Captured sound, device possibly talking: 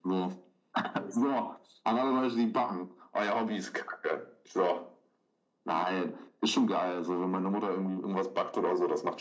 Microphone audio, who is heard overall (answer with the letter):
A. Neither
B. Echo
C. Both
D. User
B